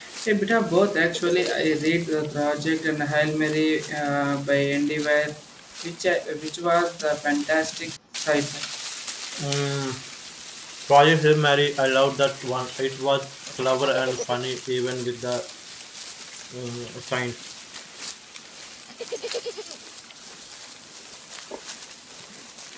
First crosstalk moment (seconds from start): none

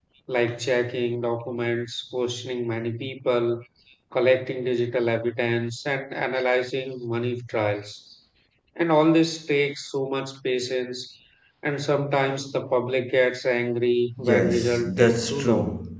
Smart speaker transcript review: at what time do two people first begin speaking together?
14.2 s

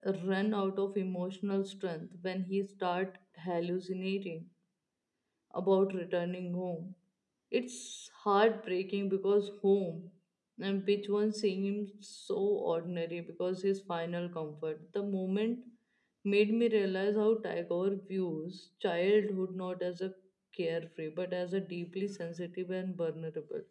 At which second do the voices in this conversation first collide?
none

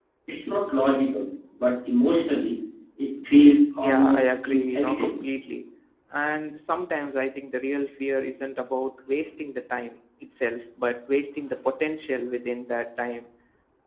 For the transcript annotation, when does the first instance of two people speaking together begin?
3.8 s

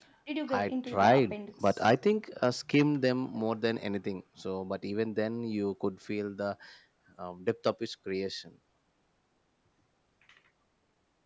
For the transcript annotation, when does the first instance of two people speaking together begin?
0.5 s

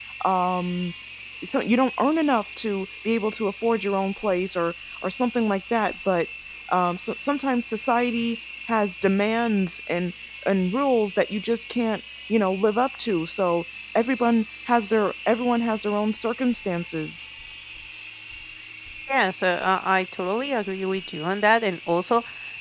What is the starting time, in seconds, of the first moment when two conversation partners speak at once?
none

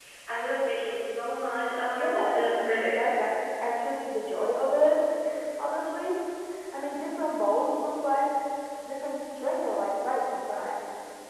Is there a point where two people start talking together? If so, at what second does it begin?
1.9 s

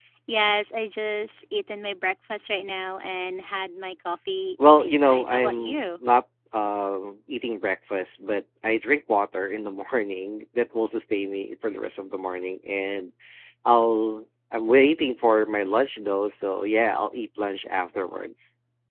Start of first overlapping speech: 4.6 s

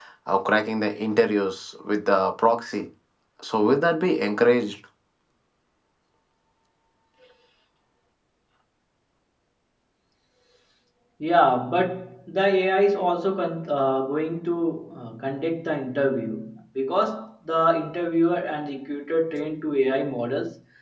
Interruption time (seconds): none

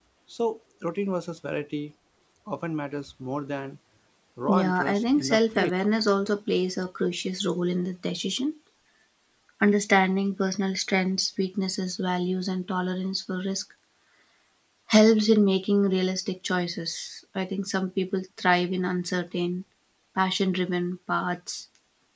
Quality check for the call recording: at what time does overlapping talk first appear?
4.5 s

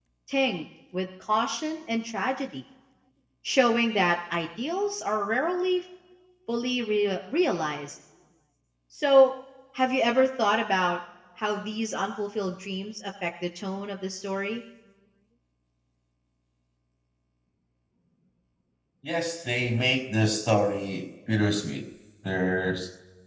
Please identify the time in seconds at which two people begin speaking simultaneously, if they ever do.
none

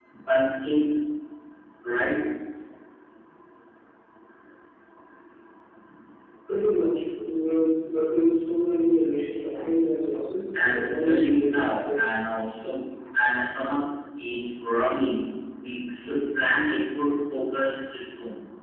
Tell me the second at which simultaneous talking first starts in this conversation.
10.5 s

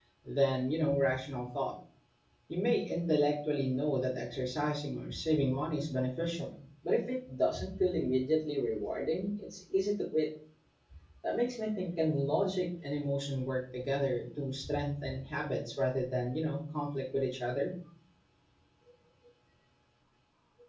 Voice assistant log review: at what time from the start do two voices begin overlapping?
none

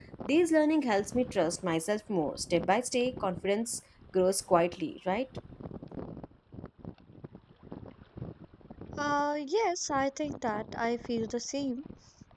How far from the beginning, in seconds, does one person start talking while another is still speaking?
none

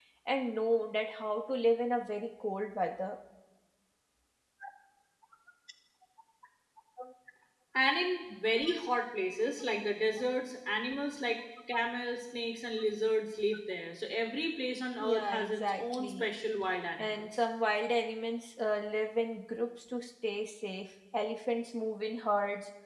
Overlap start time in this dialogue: 15.0 s

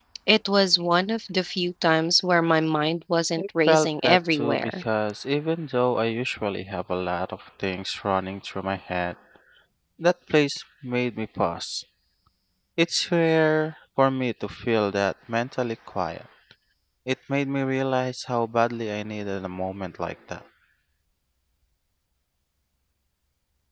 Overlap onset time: 3.4 s

